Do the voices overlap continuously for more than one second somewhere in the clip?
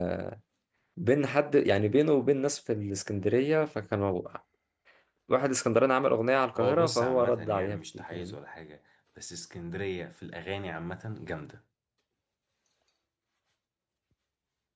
Yes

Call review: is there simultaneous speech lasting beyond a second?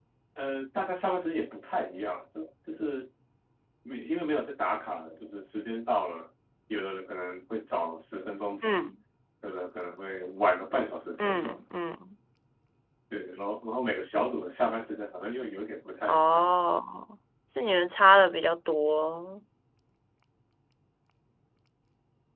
No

